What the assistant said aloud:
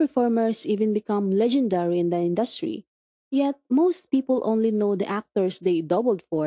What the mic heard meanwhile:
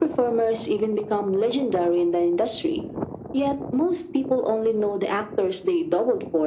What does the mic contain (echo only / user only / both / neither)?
echo only